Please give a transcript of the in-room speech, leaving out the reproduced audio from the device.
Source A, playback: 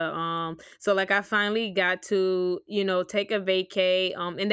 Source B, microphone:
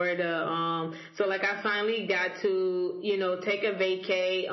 none

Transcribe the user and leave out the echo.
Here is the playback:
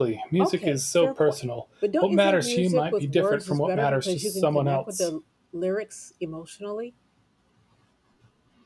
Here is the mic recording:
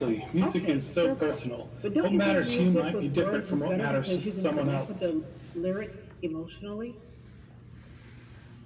none

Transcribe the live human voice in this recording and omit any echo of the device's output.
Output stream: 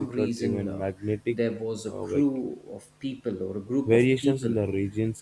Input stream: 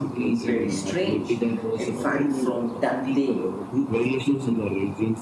very strange in fact from that day

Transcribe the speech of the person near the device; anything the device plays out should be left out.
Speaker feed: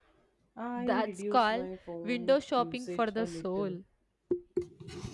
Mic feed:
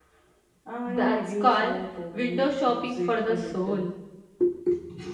none

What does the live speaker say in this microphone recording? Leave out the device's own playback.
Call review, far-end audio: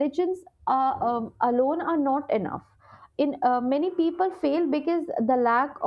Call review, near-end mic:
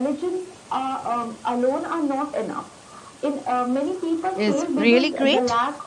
is really great.

